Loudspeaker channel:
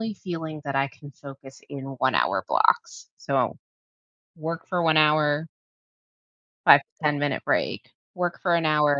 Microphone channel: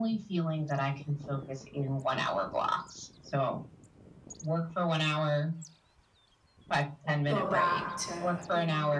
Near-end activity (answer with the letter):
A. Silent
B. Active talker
B